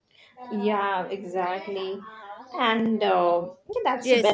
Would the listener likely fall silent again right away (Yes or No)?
No